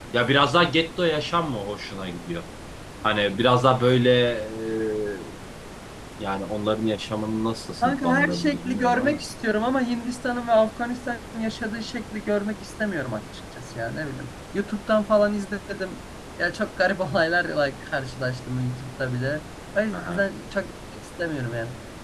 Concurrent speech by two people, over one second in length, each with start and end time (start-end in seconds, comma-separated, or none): 7.8-9.2